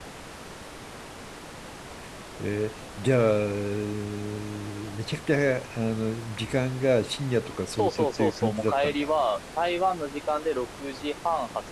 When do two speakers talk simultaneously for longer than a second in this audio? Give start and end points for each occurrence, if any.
7.7-9.1

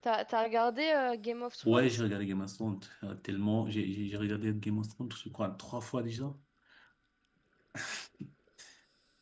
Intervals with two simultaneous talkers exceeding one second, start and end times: none

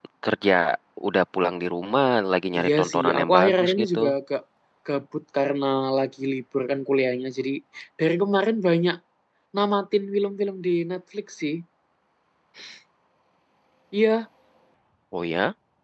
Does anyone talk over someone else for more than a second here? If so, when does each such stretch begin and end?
2.6-4.0

